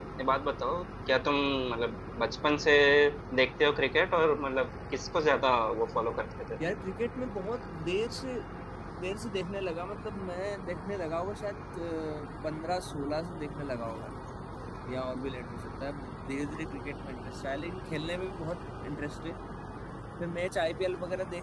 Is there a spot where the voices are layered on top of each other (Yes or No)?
No